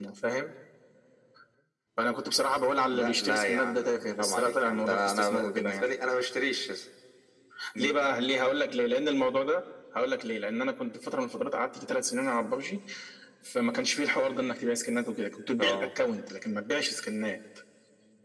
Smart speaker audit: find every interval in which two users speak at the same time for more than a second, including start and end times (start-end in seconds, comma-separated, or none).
2.9-5.9